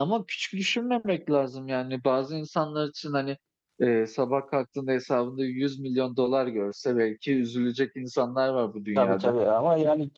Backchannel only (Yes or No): No